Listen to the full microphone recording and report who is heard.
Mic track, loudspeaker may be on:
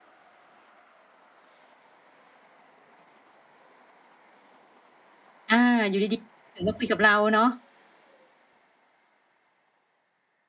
user only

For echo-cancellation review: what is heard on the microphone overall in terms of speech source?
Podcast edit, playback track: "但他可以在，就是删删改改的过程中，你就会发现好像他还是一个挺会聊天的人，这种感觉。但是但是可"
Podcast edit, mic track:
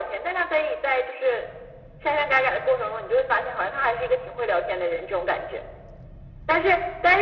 echo only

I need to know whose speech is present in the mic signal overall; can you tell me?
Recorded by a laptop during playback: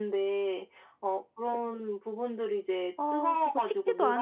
both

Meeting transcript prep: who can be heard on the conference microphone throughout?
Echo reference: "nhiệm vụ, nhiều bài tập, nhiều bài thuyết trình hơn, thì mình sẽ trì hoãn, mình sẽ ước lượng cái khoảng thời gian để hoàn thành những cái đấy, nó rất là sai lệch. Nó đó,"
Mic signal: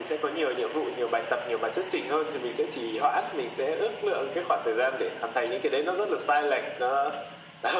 echo only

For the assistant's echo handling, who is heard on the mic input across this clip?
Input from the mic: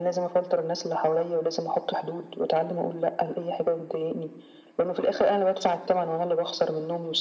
echo only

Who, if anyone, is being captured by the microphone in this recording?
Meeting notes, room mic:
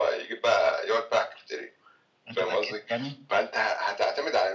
both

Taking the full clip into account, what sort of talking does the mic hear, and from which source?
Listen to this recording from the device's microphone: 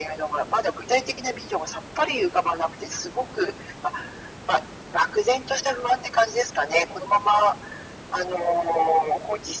echo only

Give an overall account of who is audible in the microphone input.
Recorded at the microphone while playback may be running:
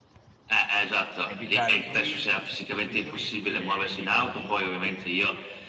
both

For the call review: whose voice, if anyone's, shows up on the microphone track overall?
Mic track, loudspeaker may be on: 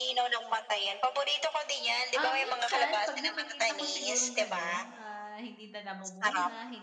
both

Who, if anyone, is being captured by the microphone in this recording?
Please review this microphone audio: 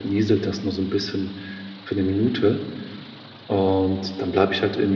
user only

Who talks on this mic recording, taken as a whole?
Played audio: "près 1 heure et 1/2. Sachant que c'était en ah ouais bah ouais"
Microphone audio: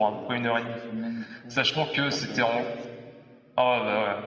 both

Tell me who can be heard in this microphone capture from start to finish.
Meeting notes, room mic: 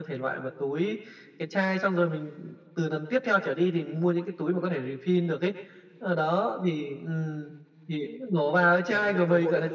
both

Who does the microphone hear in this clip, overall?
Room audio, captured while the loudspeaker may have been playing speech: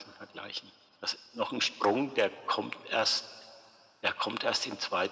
echo only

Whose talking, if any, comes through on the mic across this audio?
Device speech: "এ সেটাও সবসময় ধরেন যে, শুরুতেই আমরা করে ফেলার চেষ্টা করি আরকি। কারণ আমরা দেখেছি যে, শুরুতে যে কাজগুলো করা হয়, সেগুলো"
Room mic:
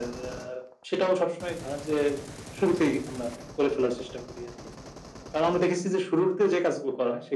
echo only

